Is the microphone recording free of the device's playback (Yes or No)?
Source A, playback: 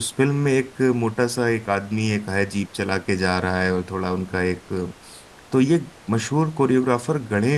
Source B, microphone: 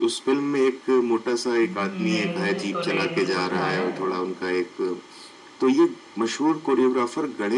No